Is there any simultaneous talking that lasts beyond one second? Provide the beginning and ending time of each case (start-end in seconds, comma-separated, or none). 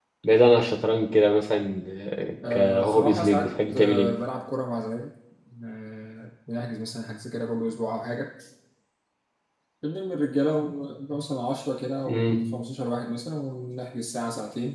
2.5-4.1